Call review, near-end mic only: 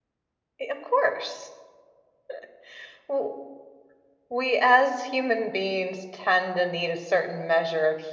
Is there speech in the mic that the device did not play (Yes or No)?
Yes